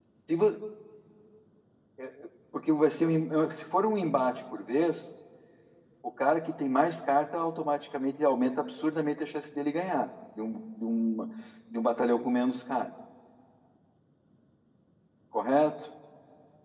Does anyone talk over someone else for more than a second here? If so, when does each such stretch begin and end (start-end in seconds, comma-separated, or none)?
none